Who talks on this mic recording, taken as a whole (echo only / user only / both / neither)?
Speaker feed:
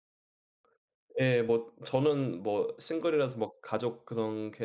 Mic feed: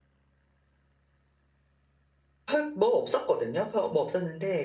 user only